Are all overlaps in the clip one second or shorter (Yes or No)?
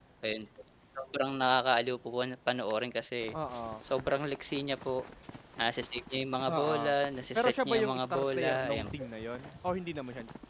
No